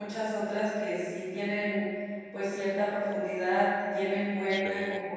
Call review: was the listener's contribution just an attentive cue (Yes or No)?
Yes